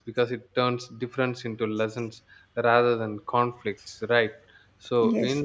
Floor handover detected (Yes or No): No